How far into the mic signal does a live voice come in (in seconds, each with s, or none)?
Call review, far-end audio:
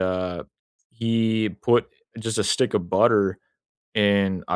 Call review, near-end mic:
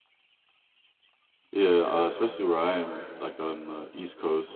1.5 s